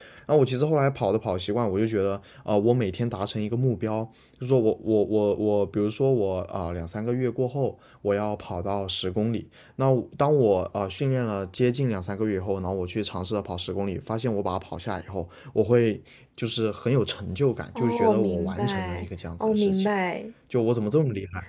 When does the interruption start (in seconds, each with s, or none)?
17.8 s